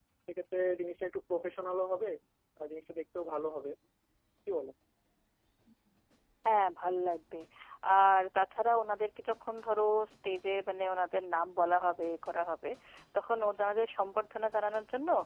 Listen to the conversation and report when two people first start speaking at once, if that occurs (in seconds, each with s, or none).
none